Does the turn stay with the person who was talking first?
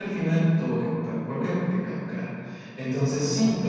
Yes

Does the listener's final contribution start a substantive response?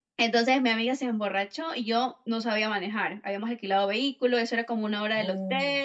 No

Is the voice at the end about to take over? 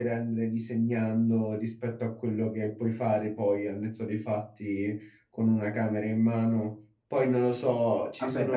Yes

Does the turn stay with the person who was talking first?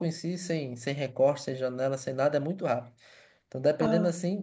Yes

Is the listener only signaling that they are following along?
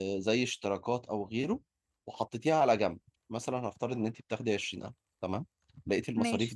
Yes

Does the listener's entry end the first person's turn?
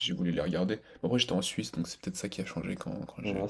Yes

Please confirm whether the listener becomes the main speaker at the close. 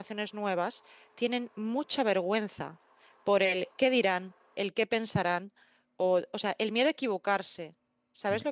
Yes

